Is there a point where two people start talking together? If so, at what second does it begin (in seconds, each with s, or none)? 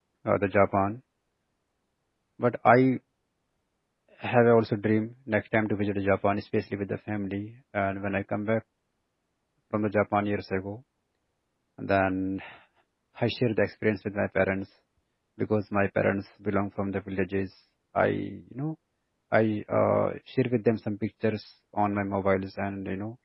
none